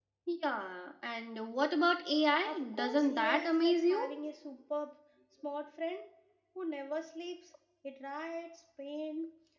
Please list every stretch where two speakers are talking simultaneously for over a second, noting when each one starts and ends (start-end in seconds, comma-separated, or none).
2.5-4.1